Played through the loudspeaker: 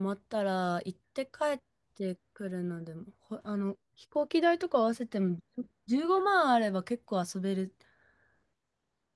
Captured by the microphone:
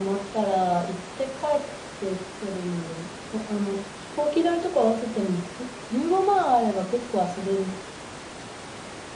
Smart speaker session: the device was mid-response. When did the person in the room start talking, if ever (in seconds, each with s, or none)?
none